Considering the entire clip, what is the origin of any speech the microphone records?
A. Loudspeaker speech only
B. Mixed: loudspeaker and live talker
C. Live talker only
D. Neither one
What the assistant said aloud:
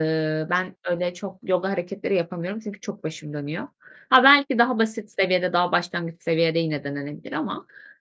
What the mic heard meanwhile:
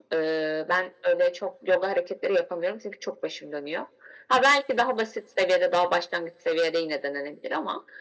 A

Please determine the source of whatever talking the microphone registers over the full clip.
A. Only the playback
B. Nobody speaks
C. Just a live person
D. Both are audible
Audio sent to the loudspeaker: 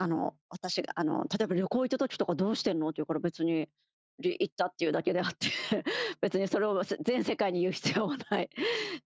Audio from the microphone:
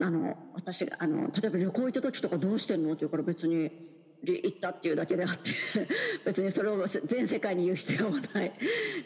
A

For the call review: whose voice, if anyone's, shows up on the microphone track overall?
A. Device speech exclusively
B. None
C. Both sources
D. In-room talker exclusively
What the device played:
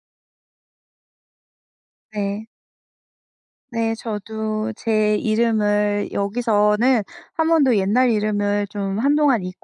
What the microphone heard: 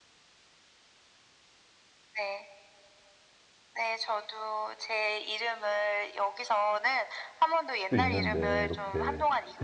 C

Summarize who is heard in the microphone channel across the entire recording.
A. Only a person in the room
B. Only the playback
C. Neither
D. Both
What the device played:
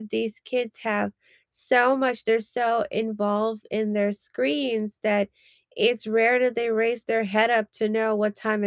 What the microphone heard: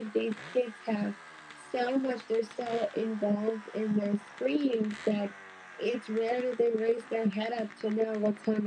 B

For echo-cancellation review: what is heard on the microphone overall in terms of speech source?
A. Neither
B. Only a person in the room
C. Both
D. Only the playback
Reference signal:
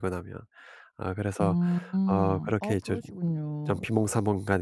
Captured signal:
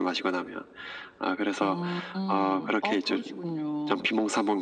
D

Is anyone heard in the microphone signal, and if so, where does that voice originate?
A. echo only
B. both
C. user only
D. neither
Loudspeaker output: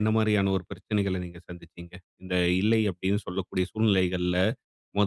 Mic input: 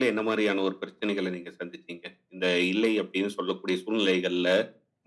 A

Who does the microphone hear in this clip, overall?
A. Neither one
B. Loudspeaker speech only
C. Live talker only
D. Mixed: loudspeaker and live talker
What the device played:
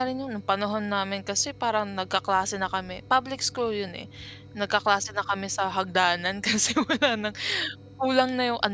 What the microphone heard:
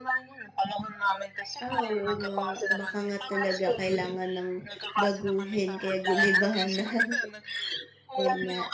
D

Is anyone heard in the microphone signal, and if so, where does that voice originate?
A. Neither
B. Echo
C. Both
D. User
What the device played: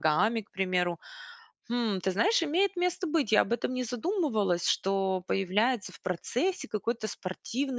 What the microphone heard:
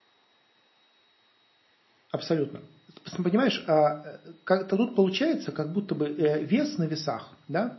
D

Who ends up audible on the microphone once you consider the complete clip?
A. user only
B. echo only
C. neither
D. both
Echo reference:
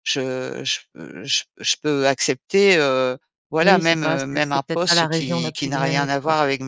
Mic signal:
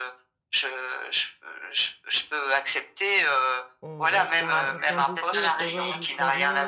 D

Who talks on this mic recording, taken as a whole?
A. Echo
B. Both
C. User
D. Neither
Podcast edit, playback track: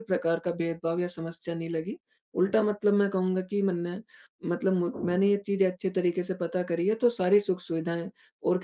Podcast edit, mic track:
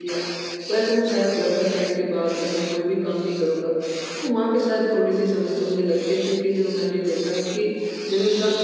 C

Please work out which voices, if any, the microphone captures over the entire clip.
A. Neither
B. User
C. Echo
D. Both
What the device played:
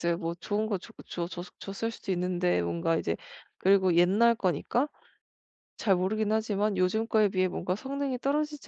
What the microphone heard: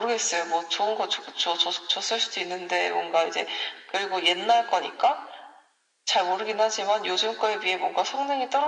C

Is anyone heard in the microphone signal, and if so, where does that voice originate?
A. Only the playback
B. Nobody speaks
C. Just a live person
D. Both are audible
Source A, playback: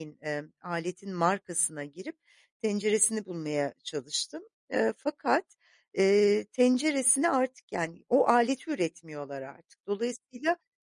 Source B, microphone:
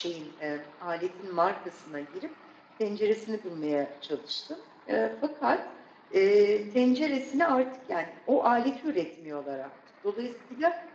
A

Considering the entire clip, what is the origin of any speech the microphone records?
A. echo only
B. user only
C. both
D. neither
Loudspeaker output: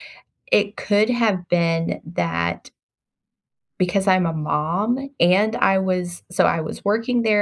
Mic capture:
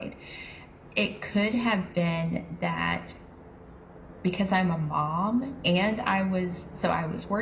A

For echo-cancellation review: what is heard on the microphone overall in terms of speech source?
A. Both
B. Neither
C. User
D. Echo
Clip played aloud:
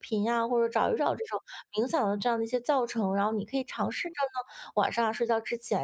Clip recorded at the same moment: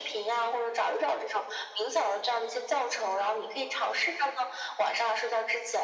D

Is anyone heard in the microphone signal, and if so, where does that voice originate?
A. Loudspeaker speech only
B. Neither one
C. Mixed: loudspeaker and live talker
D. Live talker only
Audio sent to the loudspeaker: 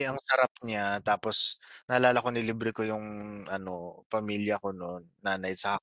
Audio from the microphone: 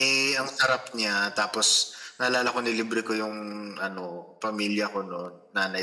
A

